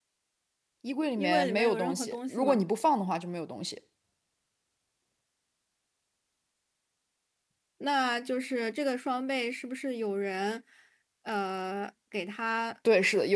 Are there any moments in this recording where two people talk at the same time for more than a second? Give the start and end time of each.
1.2-2.6

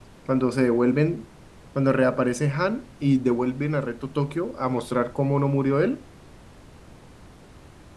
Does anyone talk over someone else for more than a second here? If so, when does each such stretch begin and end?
none

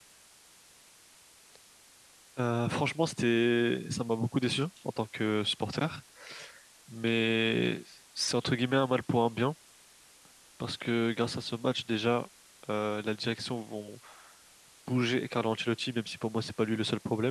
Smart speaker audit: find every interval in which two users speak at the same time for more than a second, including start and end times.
none

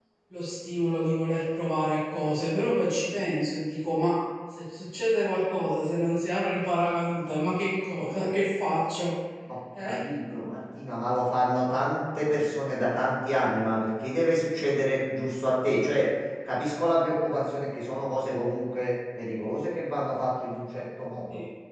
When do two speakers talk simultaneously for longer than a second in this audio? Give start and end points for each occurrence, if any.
none

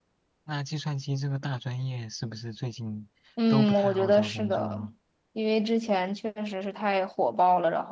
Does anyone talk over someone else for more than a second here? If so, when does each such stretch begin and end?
3.5-4.8

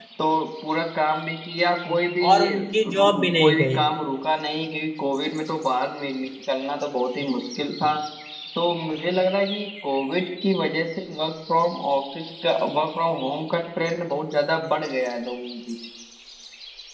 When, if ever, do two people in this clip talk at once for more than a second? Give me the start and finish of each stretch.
2.2-3.8

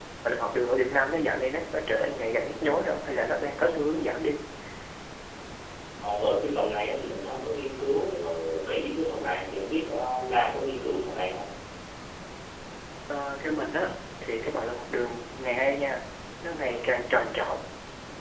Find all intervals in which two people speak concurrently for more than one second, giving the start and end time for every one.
none

